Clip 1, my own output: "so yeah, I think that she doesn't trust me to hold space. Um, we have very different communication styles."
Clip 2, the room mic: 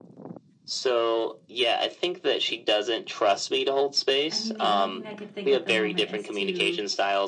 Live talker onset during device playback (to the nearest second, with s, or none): 4 s